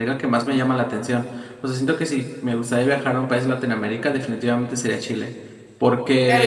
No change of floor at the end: No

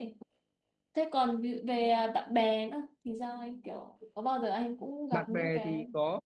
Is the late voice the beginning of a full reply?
Yes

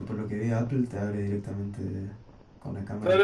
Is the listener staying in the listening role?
No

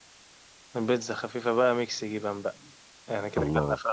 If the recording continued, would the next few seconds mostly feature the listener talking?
No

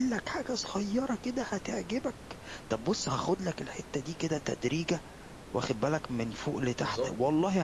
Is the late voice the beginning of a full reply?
No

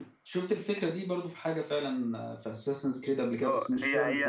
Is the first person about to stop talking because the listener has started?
Yes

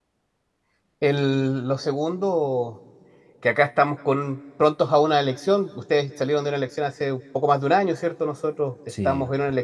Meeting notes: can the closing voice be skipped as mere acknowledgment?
Yes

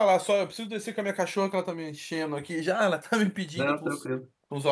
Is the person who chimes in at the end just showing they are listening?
Yes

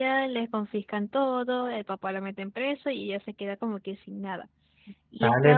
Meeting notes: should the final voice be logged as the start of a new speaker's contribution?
Yes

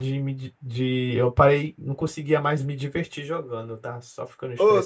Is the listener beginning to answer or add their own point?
Yes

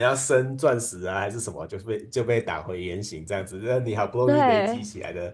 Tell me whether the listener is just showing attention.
Yes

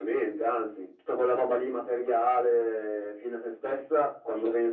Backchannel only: Yes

